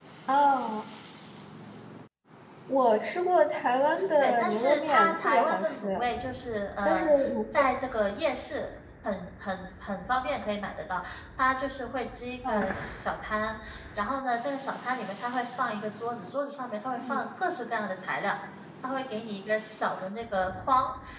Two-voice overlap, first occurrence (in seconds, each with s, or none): 4.2 s